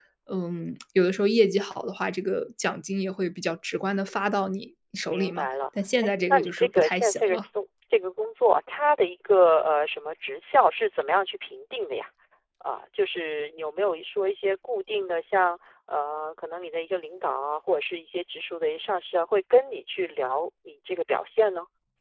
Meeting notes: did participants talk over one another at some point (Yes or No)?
Yes